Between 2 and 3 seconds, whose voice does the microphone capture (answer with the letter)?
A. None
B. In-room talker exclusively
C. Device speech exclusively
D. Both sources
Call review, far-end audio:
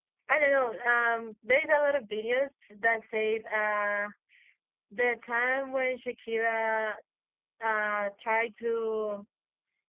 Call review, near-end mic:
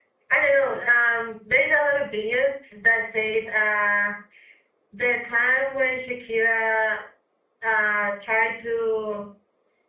C